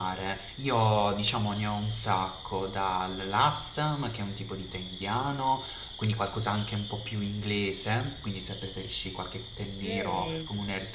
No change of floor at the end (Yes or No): Yes